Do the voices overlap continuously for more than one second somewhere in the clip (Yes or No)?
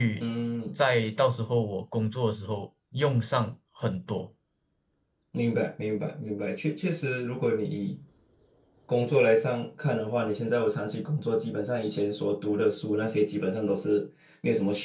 No